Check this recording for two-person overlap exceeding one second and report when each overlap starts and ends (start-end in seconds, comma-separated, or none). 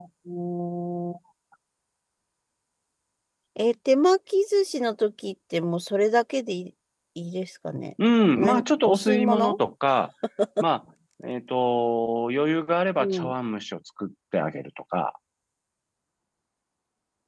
8.3-9.6